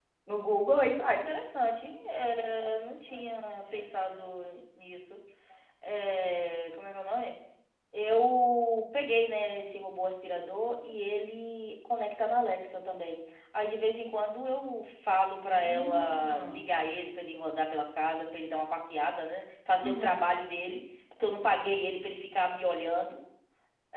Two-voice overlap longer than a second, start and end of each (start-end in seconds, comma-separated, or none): 15.5-16.7